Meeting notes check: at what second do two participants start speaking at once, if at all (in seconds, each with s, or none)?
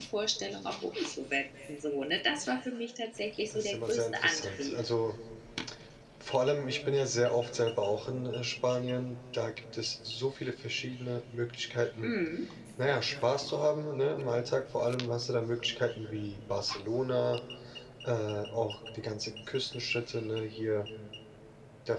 3.5 s